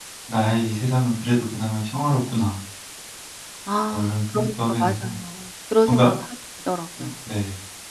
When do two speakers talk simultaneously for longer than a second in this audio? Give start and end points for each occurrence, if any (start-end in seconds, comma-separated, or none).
3.9-5.1